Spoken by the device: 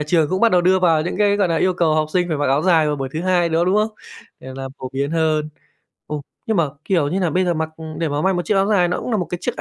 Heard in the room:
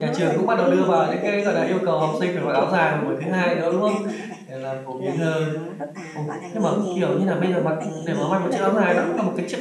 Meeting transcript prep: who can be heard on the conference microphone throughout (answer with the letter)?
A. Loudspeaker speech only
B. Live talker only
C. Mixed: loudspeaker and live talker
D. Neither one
C